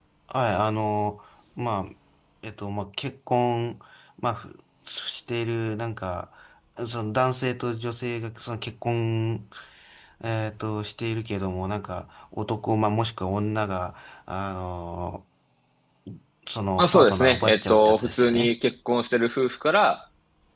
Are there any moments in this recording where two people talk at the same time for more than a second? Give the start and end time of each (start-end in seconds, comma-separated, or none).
16.8-18.5